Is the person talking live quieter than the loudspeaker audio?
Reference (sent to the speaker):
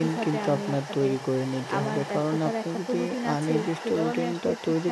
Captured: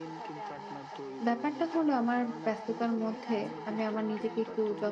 No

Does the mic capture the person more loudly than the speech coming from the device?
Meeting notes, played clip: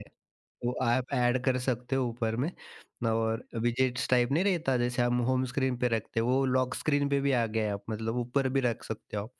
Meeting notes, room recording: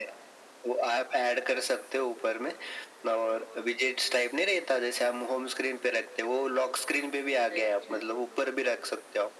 No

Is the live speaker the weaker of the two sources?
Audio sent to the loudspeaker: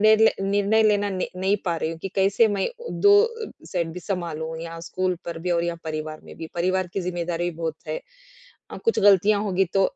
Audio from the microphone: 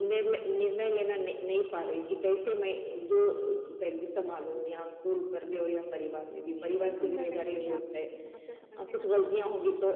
Yes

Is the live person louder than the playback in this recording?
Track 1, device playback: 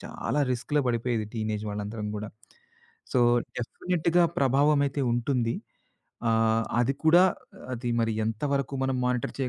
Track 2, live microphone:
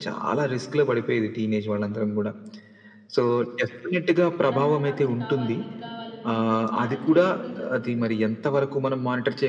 No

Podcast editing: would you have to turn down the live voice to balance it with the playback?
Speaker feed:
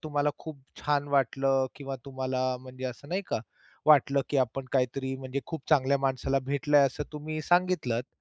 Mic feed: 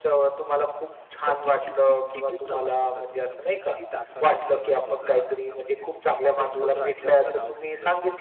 No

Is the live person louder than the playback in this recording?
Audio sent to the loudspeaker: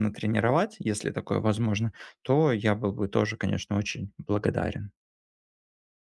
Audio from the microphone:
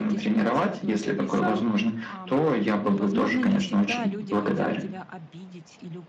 No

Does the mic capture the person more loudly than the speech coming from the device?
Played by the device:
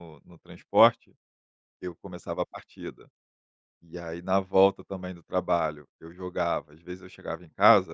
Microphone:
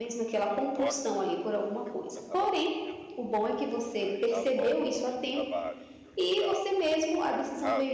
Yes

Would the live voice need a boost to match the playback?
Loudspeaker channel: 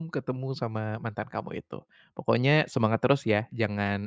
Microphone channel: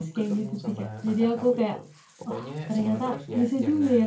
No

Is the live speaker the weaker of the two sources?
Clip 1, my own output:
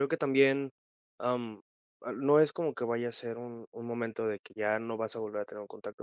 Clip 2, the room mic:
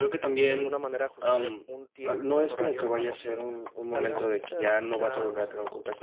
Yes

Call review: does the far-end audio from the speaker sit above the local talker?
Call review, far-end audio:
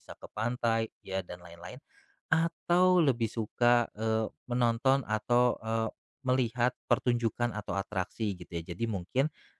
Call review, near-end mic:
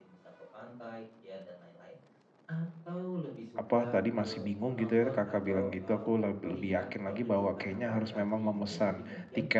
No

